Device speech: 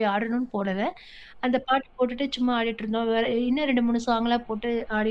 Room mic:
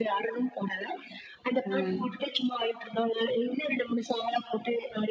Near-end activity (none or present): present